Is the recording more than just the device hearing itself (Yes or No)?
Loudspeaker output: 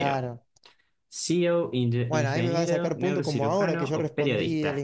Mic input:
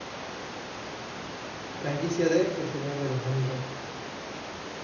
Yes